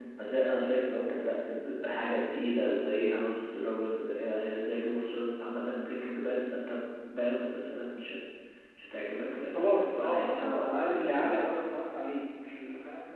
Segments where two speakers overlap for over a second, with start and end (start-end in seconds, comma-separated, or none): 9.5-11.4